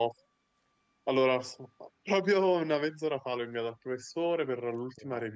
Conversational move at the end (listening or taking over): listening